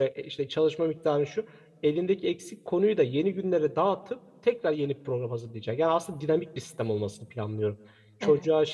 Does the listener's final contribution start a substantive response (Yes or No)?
No